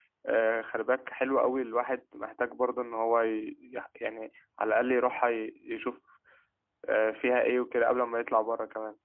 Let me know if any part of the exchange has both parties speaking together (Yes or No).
No